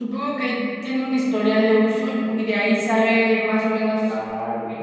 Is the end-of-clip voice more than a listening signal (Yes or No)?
Yes